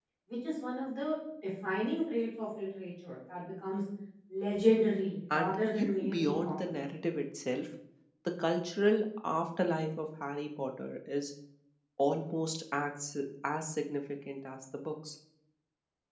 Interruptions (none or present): present